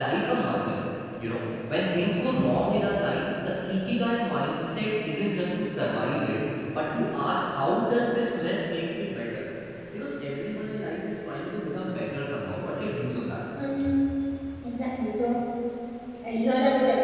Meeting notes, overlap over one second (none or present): none